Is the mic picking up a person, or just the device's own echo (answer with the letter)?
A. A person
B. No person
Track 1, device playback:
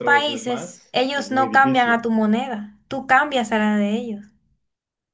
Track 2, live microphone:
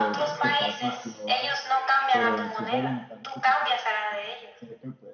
A